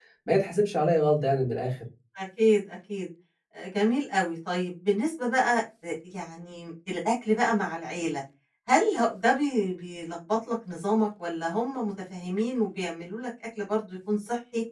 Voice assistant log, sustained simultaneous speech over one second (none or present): none